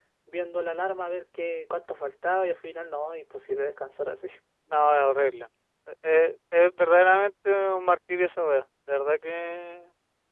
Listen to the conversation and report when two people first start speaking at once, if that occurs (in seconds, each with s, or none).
none